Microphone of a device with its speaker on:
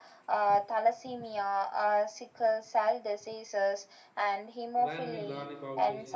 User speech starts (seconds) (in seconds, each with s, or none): 4.7 s